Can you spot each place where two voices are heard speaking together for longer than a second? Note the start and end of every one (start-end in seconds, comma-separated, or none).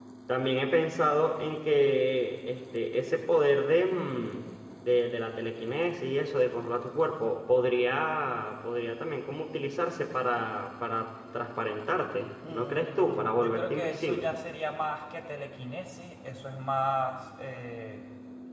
12.5-14.4